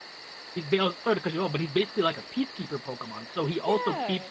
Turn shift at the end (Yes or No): No